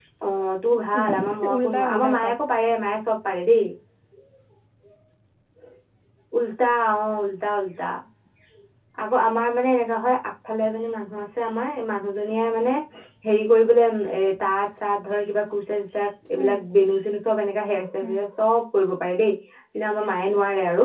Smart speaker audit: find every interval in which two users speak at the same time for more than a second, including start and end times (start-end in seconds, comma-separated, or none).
1.0-2.3